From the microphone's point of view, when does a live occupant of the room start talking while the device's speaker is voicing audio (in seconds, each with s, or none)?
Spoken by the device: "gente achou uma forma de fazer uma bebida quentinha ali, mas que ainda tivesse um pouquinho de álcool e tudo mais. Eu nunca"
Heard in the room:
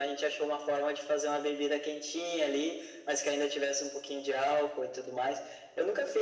none